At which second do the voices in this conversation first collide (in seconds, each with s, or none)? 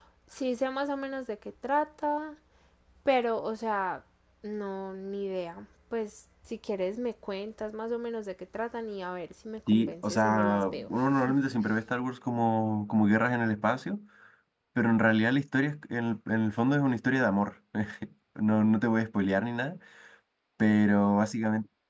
9.7 s